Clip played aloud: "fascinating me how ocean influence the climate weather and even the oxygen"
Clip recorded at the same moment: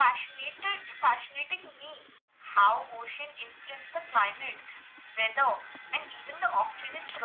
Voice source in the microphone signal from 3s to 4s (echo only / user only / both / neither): echo only